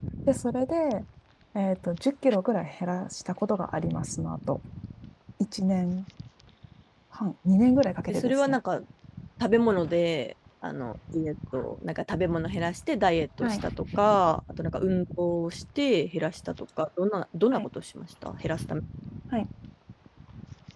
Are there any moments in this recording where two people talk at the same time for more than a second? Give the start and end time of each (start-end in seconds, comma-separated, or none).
none